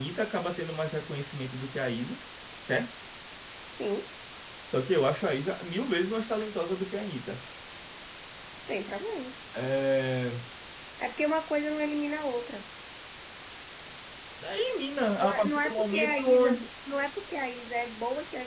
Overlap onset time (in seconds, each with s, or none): 15.2 s